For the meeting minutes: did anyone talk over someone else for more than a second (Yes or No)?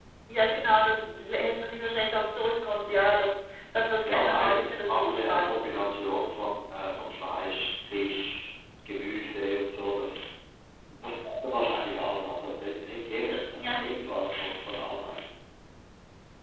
Yes